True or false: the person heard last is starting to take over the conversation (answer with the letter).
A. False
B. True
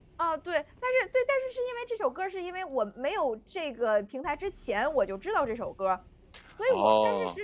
A